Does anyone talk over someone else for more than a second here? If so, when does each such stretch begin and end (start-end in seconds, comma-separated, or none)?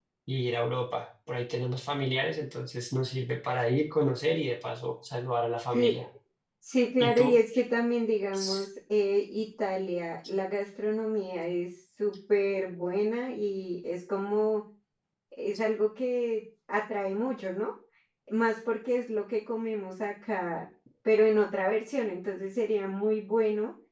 none